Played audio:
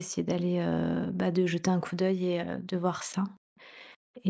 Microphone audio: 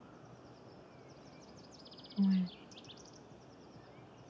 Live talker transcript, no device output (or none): Ouais.